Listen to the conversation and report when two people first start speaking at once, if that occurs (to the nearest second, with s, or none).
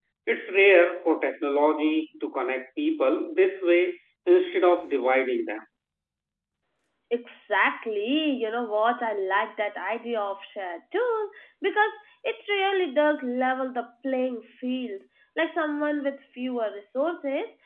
none